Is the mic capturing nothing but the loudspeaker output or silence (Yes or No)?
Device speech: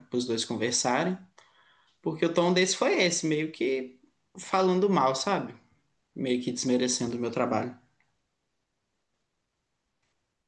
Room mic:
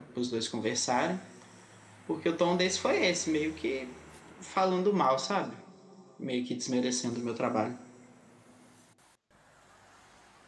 Yes